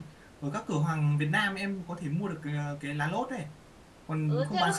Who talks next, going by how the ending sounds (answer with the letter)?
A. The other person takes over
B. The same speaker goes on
A